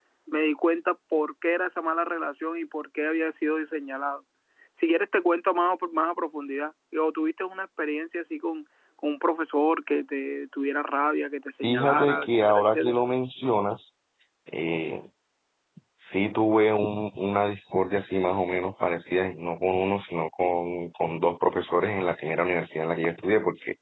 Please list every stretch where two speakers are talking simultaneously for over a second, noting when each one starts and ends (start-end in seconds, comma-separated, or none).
11.6-13.0